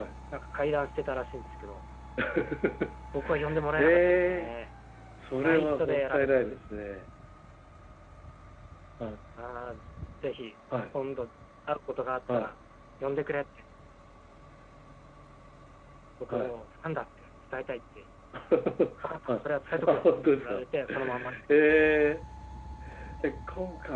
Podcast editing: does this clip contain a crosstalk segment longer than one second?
Yes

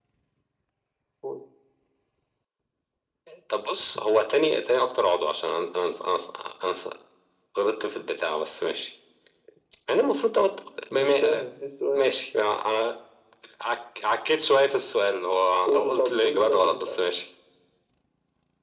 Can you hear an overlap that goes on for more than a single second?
Yes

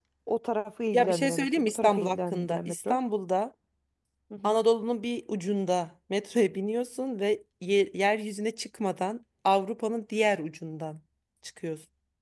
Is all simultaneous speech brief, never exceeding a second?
No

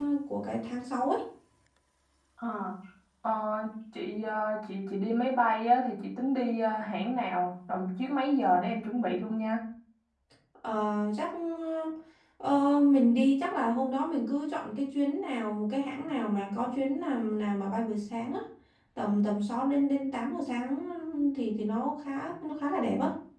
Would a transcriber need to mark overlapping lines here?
No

